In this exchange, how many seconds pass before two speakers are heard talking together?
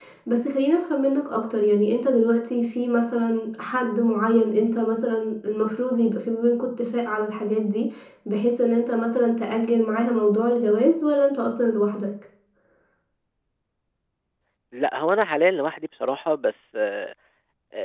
none

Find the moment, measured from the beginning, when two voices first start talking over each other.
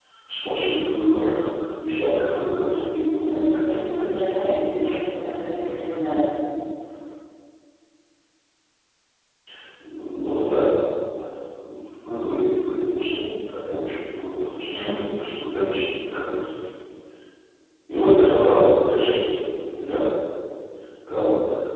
3.2 s

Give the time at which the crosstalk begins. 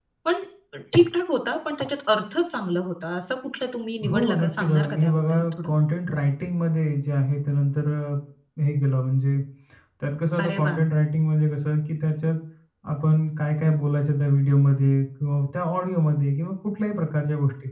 4.1 s

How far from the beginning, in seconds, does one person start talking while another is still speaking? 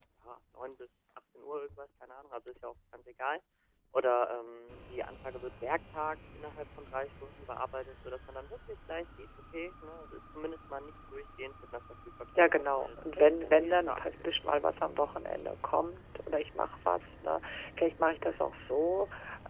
12.3 s

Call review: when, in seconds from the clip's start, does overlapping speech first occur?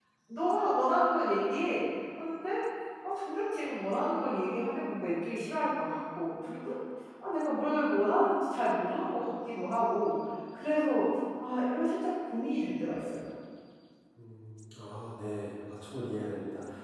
none

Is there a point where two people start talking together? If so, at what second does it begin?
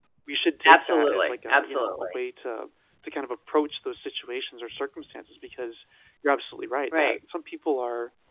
0.7 s

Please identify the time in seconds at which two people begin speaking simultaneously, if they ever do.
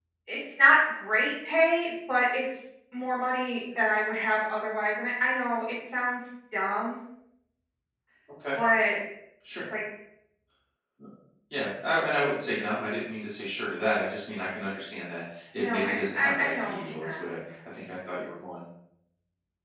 15.6 s

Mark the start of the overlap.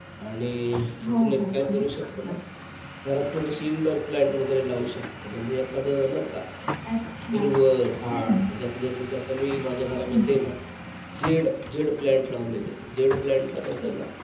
1.1 s

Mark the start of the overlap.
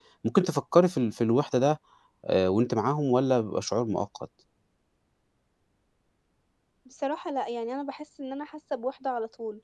none

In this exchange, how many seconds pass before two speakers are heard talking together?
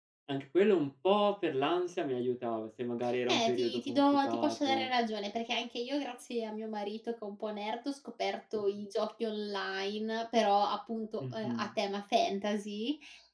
3.3 s

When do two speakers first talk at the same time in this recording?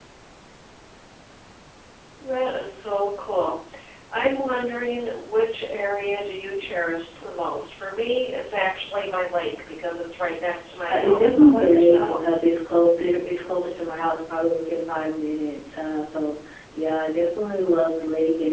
10.9 s

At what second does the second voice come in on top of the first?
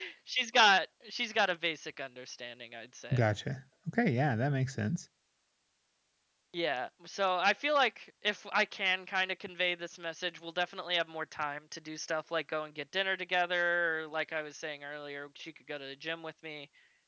none

